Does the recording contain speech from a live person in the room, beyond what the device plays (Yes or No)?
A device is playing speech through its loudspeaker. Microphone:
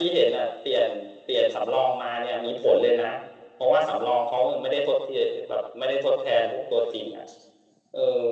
No